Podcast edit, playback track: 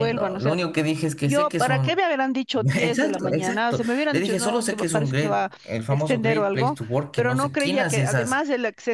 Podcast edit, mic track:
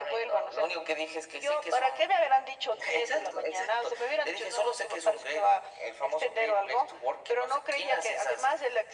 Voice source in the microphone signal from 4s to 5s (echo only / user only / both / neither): echo only